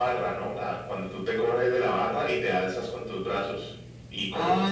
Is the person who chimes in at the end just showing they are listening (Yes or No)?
No